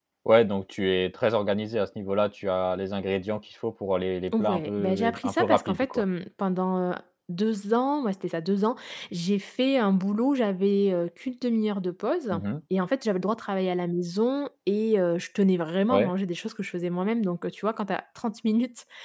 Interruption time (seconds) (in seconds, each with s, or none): 4.3 s